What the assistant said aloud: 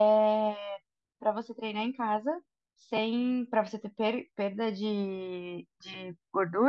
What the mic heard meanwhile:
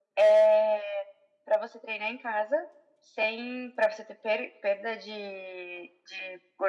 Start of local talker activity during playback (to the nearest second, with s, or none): none